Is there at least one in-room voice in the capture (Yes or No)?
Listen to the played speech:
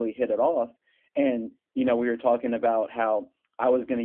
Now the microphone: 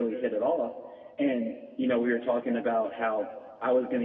No